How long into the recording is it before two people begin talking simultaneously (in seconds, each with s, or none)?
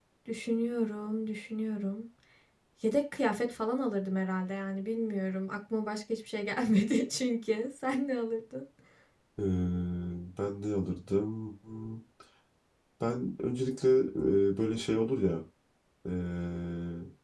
none